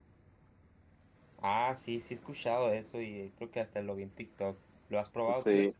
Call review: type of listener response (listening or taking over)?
taking over